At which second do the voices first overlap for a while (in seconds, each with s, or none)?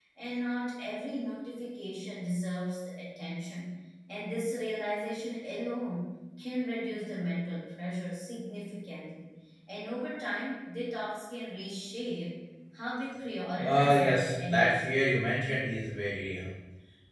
13.6 s